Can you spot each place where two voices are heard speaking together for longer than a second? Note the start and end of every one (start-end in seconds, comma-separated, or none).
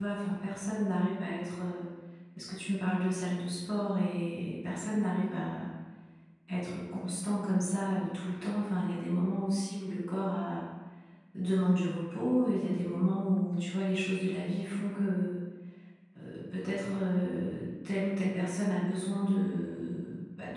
none